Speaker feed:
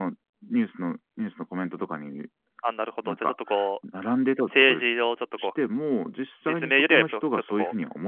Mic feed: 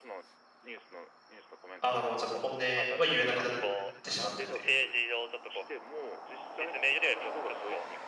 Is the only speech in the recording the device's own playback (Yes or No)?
No